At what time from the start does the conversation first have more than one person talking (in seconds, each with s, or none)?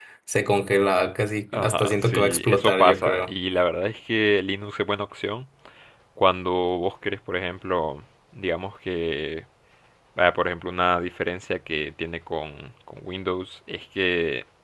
1.5 s